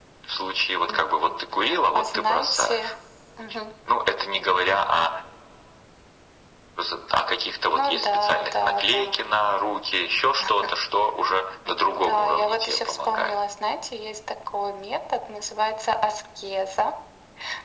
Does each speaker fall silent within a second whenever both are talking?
No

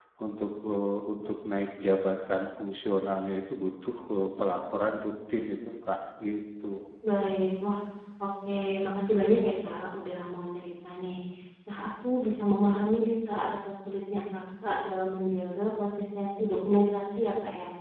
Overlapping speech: No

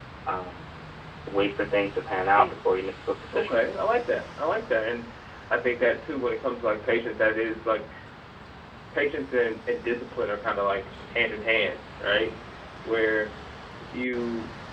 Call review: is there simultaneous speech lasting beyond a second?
No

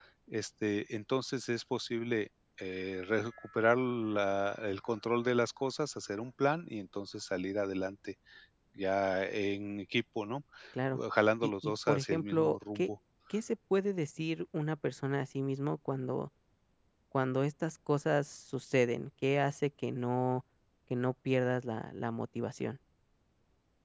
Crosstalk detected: Yes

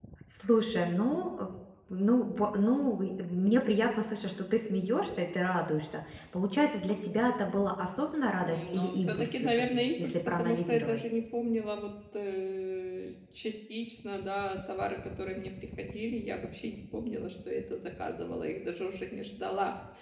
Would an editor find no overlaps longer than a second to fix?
No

